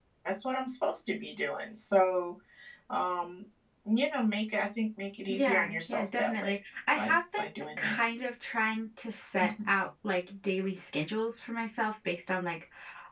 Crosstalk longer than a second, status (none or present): present